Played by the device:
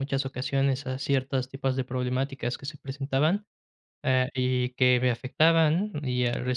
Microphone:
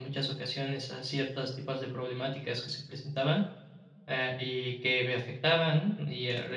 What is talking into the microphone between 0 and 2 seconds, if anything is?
echo only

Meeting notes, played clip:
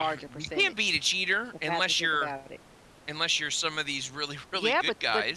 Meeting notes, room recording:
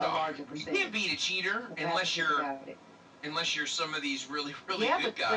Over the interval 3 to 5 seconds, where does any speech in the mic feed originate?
echo only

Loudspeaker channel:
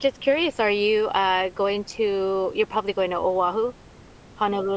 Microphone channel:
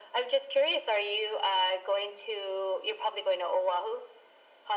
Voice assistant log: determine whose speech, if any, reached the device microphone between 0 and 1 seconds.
echo only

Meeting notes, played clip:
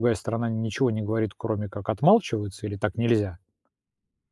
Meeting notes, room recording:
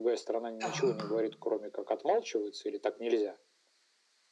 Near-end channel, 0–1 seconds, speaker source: both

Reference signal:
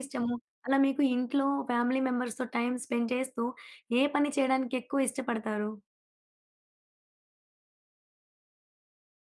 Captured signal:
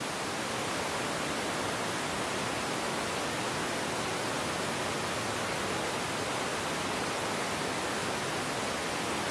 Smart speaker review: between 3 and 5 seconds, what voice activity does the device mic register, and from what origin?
neither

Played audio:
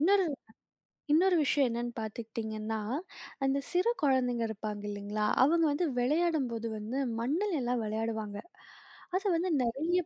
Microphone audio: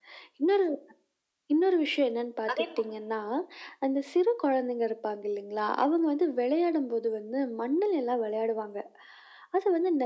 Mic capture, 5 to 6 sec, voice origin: echo only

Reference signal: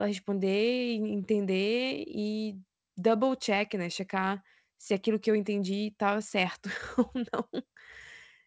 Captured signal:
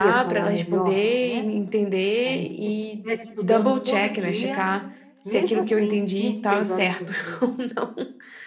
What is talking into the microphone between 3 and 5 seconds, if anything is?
both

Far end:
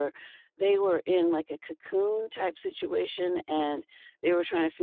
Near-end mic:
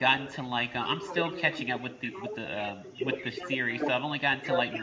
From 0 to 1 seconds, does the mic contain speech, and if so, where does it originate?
both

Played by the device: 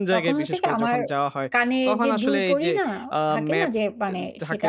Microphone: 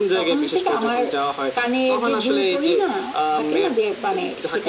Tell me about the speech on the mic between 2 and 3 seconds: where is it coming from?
echo only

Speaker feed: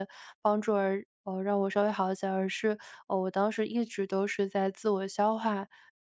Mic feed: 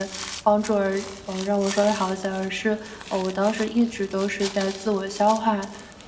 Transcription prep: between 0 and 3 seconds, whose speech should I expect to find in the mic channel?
echo only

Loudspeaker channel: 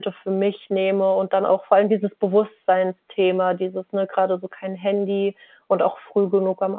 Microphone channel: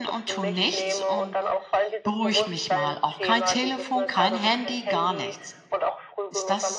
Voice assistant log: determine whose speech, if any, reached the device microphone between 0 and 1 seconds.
both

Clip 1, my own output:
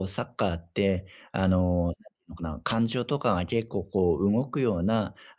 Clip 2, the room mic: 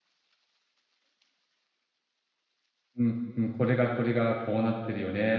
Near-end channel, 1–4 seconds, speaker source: user only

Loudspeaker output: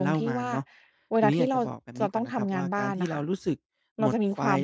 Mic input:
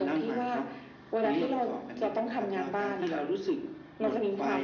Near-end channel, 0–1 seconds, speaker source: echo only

